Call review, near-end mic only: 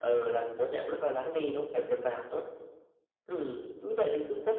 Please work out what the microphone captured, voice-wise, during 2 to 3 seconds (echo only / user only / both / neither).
echo only